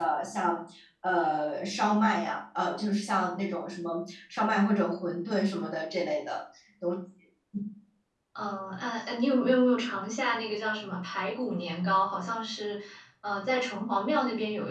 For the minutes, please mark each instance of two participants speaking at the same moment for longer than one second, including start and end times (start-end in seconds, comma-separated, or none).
none